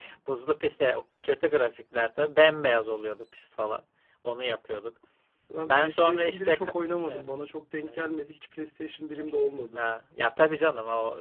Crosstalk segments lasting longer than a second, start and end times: 5.6-7.3

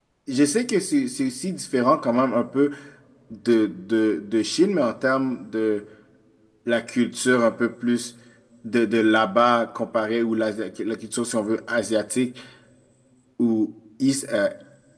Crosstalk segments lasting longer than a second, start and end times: none

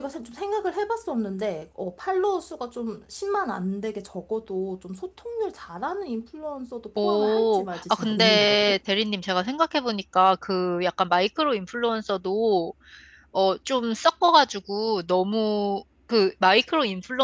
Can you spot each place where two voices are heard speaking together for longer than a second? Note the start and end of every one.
7.0-8.8

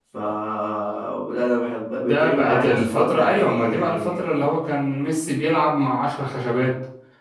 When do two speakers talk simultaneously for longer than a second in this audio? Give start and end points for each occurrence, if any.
2.0-4.2

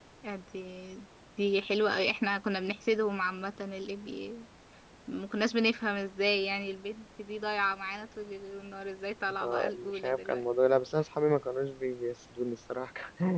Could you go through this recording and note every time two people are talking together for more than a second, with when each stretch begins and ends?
9.4-10.8

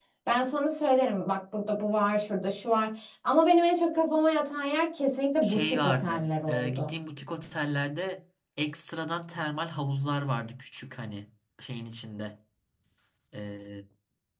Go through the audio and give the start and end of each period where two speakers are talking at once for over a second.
5.4-6.9

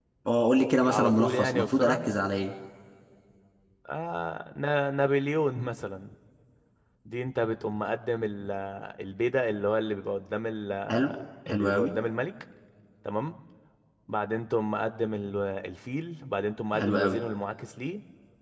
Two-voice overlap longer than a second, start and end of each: 0.9-2.1

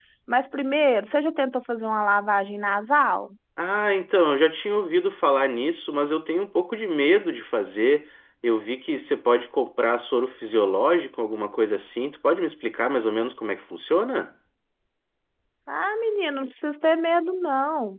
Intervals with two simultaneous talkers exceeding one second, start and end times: none

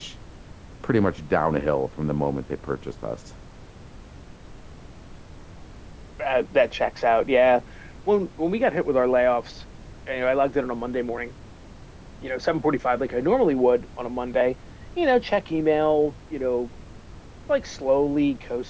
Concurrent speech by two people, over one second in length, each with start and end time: none

